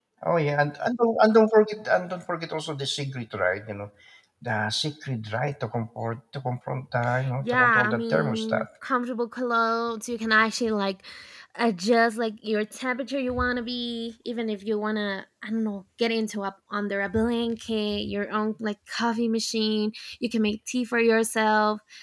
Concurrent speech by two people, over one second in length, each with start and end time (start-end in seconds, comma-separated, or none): 7.4-8.7